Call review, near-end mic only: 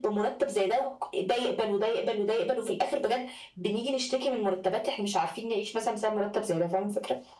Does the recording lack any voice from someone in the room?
Yes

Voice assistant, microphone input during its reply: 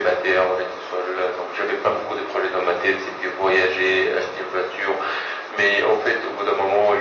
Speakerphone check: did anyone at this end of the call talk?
No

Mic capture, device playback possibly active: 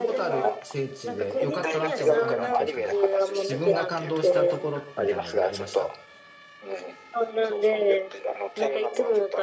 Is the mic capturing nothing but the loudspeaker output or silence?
No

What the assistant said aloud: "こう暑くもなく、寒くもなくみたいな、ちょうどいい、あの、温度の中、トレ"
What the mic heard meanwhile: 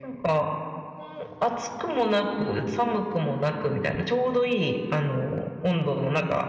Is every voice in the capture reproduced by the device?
Yes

